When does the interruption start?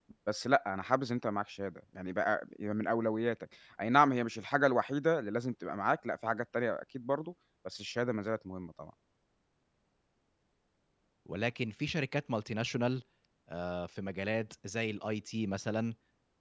none

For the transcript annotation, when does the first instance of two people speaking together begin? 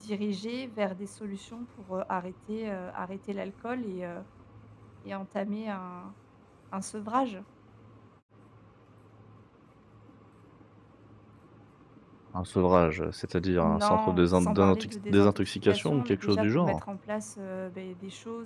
13.6 s

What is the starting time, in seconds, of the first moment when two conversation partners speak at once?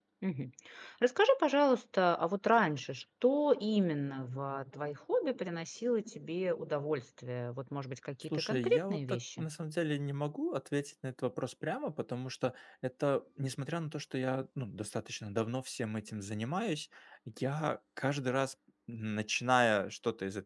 8.2 s

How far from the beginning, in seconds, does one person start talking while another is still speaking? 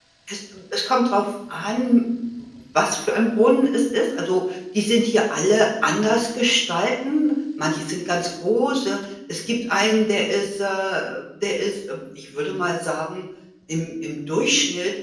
none

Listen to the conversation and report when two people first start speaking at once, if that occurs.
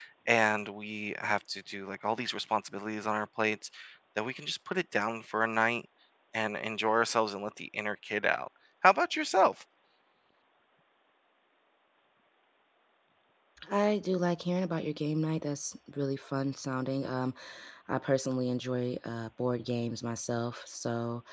none

